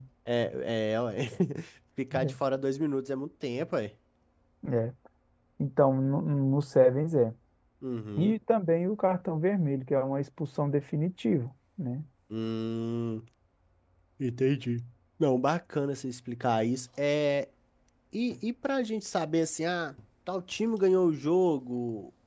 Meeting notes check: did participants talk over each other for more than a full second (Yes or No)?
No